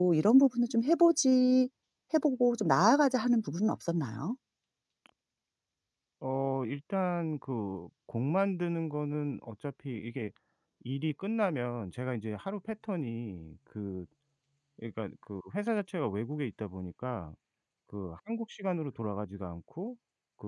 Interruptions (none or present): none